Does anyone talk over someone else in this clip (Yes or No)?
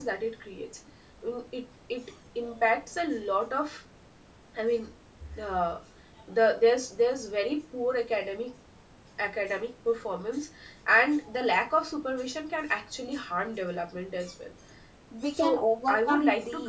Yes